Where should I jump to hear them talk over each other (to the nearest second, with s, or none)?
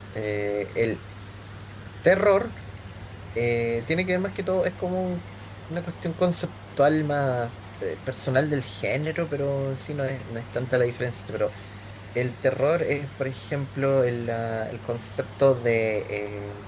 none